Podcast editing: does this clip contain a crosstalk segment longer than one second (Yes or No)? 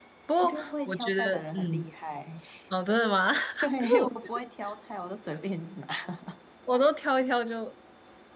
Yes